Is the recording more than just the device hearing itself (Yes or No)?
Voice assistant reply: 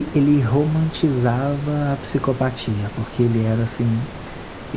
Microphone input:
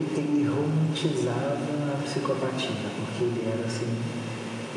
No